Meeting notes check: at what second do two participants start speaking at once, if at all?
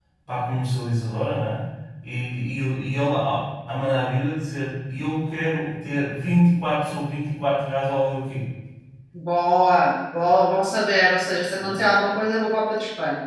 none

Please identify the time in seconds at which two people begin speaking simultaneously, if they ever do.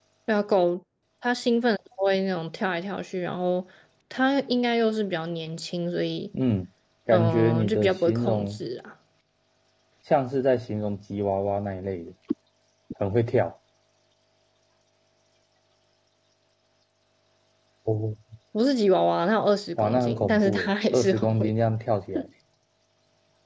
7 s

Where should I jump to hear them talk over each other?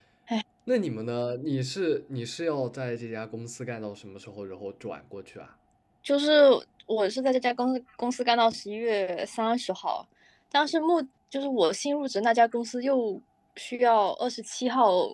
none

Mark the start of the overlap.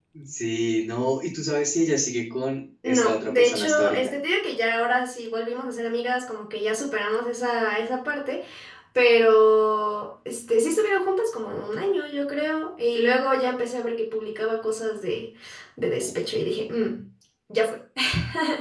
3 s

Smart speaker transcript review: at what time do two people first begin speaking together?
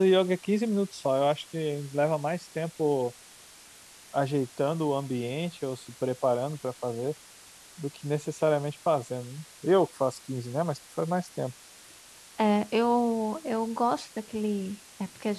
none

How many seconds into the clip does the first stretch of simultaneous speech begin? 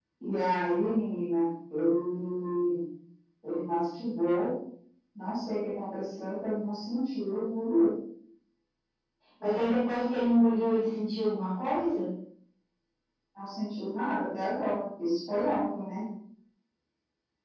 none

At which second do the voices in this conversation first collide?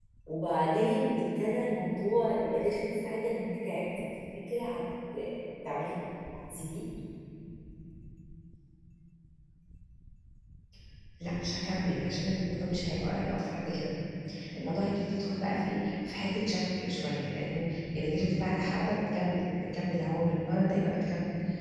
none

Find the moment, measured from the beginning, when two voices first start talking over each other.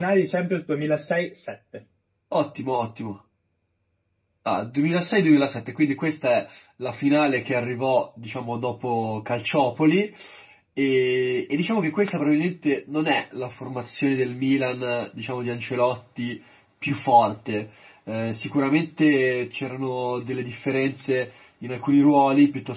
none

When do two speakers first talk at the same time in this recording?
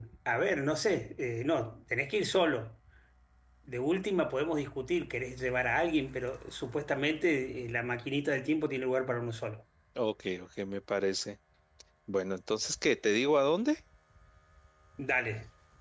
none

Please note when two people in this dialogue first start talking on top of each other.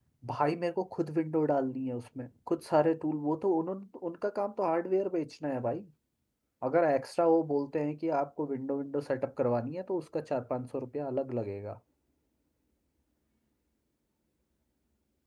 none

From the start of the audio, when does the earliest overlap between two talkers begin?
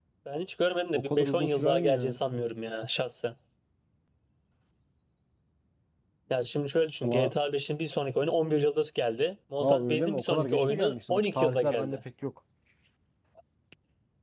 1 s

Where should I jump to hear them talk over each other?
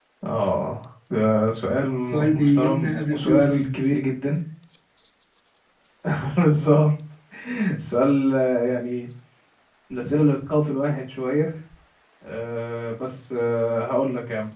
2 s

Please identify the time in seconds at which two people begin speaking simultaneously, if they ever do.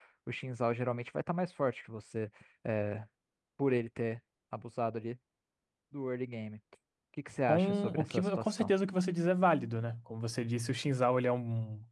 7 s

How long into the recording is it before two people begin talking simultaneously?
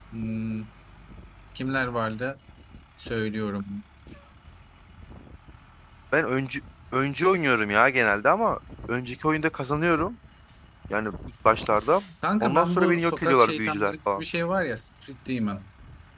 12 s

